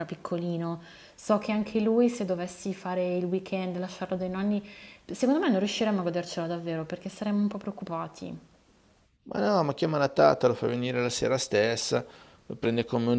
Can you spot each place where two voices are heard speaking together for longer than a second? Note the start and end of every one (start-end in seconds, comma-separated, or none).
none